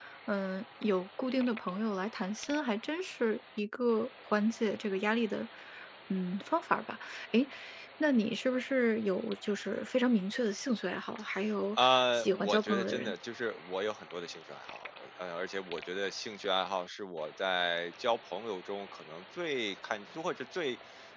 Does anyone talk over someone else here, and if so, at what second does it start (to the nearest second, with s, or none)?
12 s